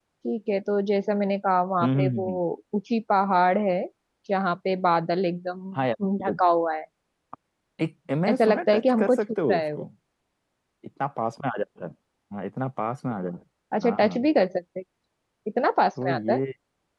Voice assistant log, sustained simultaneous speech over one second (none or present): present